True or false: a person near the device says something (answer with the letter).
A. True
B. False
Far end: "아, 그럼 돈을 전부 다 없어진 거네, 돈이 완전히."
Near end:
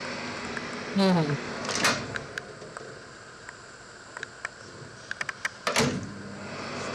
A